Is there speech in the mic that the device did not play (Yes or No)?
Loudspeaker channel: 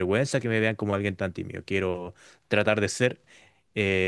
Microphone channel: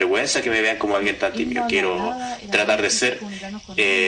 Yes